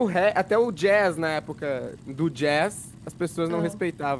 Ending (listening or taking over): listening